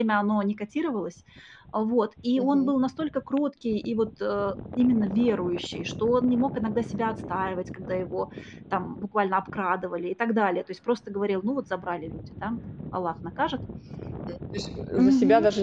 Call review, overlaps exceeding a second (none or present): none